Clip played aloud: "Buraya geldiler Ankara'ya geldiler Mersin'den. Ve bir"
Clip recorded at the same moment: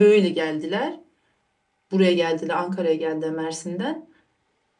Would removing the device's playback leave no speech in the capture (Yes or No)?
Yes